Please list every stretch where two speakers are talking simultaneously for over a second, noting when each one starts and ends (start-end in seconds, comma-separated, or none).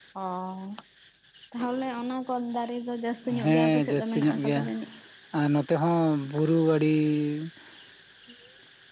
3.4-4.6